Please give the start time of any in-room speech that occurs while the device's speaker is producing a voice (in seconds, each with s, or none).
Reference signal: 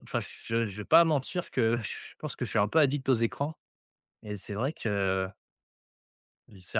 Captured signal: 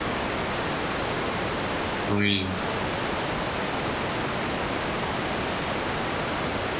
2.1 s